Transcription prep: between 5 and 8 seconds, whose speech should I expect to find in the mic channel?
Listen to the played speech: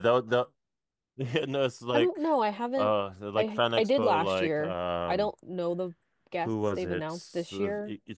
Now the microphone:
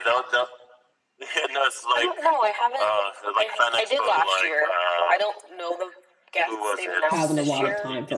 both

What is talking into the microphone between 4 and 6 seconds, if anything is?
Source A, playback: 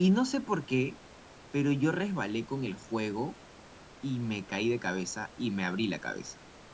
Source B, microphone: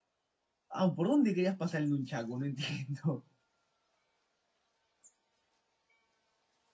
neither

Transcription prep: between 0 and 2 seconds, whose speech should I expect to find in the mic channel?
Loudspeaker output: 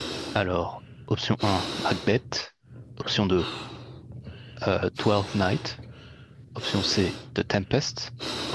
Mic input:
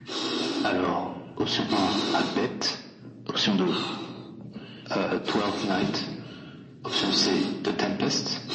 echo only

